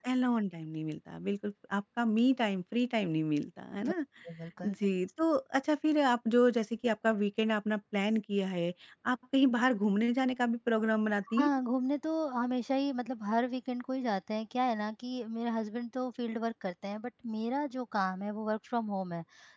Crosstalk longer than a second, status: none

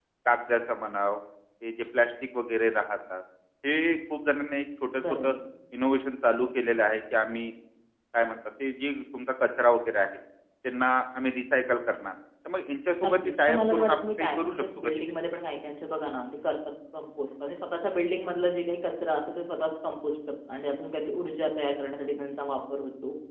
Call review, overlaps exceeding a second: present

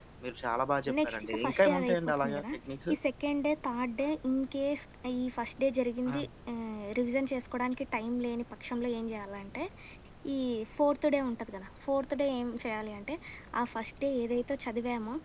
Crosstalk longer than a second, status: present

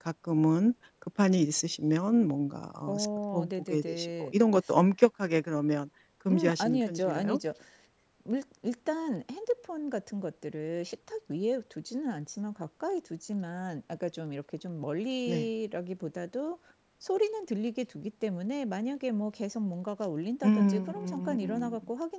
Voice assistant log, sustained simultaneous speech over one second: present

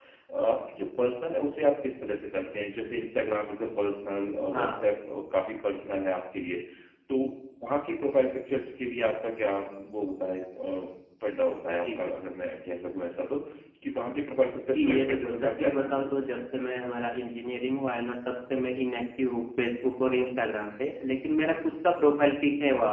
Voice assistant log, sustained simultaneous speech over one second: present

